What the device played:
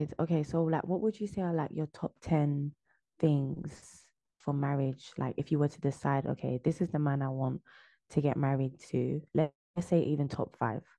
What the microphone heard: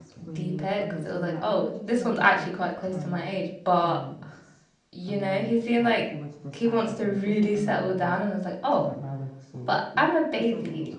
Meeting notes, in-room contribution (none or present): present